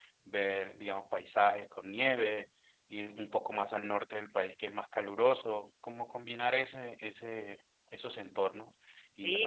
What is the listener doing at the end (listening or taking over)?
taking over